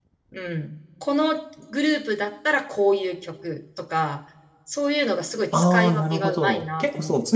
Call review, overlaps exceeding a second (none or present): present